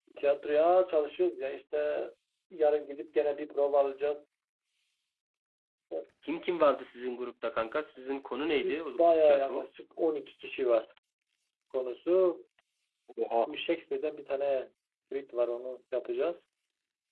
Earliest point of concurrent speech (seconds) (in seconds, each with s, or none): 8.4 s